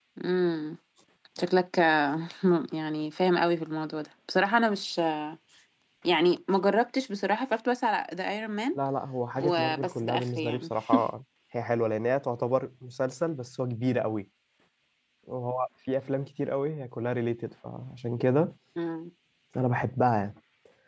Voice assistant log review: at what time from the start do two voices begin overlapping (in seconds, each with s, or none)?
9.4 s